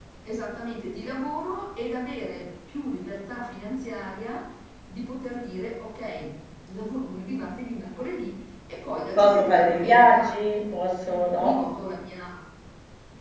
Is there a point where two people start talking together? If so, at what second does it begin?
9.1 s

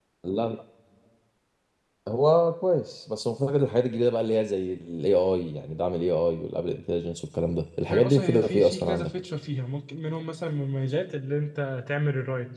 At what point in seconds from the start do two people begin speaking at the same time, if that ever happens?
7.9 s

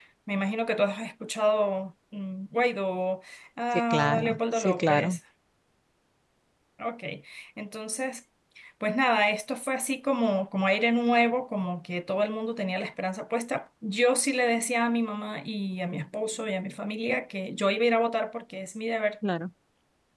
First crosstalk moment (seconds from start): 3.9 s

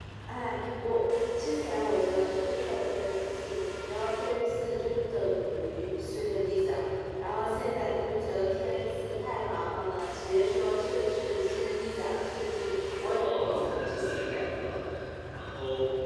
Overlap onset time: 13.2 s

